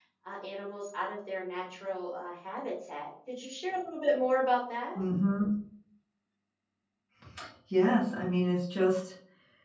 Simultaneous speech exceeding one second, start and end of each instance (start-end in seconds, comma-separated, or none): none